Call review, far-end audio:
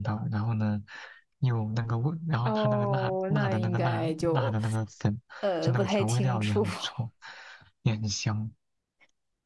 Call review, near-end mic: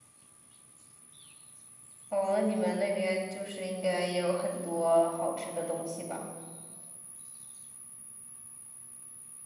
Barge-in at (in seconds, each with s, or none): 2.1 s